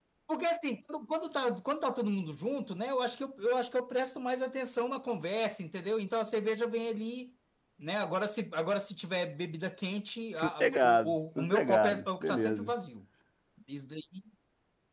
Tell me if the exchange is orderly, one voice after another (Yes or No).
No